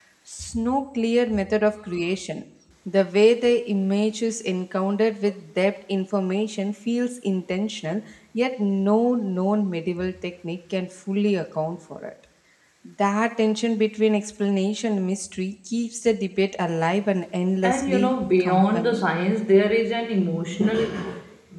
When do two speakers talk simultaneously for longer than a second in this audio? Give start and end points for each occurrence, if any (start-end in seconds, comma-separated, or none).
17.6-19.1